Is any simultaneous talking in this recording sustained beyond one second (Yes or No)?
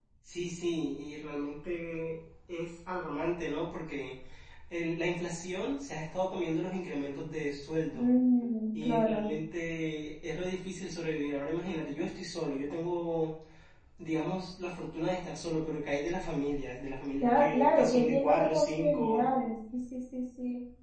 Yes